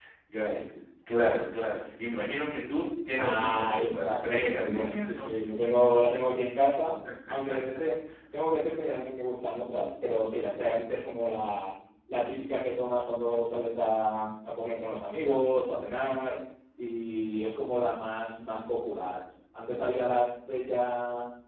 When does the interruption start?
3.2 s

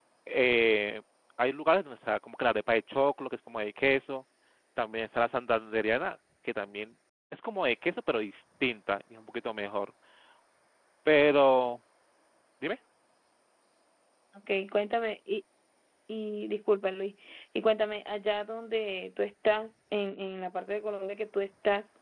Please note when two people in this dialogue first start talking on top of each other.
none

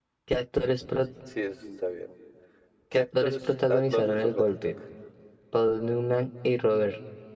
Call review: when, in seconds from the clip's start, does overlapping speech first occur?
2.9 s

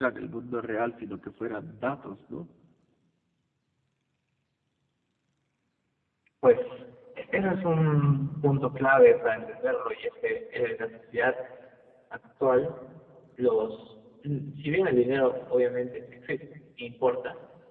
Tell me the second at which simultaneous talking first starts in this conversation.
none

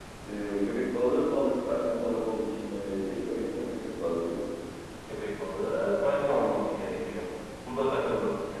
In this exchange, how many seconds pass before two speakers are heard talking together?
none

